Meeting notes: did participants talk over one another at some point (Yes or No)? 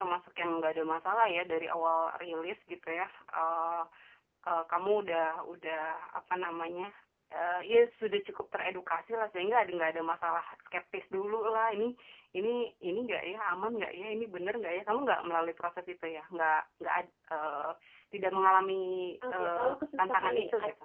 Yes